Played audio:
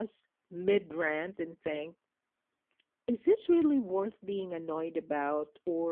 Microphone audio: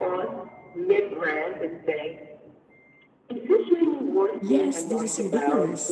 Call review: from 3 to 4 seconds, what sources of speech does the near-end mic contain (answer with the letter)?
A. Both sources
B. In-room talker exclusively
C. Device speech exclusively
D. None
C